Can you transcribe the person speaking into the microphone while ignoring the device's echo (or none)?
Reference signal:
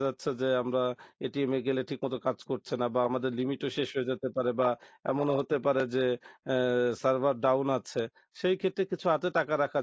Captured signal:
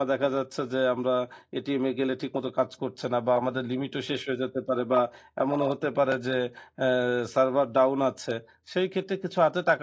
none